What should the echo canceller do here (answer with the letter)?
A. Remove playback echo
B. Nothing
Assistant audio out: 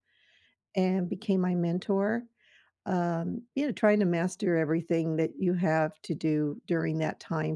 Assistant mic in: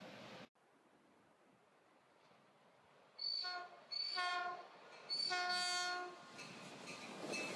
B